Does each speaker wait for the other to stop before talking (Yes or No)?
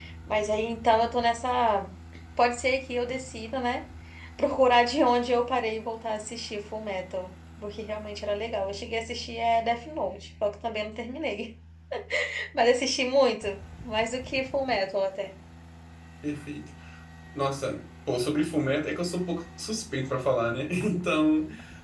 Yes